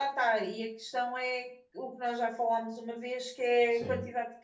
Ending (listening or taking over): listening